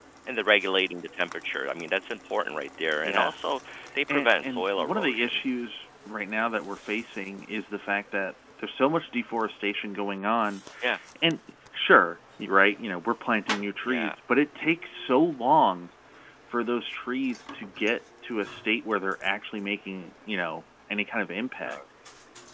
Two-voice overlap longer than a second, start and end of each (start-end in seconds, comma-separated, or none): 4.1-5.4